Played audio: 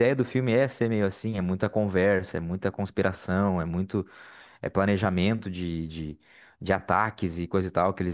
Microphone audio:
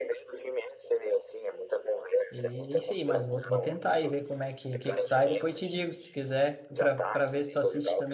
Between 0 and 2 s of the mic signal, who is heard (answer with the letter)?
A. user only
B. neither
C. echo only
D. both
C